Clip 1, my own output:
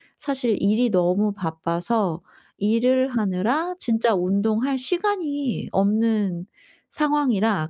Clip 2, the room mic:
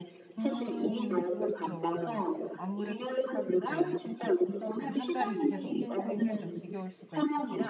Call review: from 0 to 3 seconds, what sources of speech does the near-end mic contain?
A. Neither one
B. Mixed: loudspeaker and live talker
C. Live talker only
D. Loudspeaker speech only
B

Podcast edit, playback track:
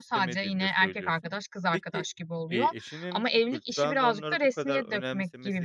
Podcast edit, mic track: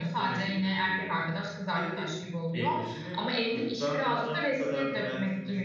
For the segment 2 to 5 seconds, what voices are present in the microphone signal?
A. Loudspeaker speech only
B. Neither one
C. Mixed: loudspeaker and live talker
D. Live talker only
A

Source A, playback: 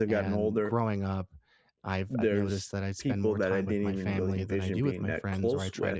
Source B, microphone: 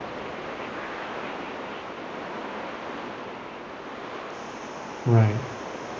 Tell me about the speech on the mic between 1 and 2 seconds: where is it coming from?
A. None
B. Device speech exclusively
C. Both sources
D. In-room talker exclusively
A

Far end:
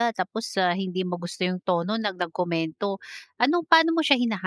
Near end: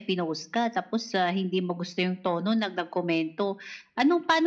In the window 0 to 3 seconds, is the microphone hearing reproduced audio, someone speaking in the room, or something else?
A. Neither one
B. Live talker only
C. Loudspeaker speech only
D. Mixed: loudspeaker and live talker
C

